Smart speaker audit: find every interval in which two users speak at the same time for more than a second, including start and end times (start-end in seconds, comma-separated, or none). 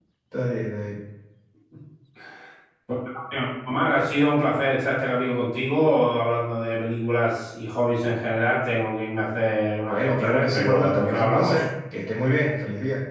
9.9-11.6